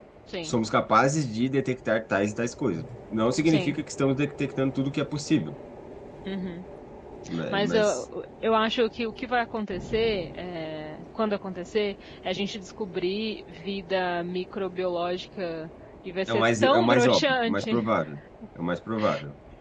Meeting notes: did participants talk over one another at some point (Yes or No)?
Yes